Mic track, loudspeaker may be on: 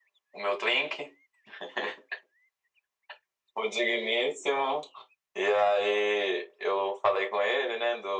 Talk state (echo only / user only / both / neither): echo only